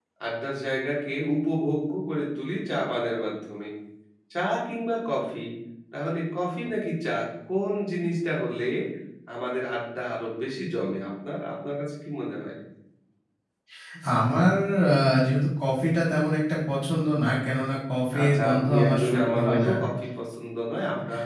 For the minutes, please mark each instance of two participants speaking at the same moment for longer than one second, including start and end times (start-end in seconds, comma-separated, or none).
18.2-19.7